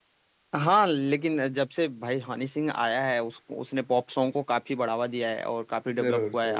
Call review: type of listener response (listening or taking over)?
listening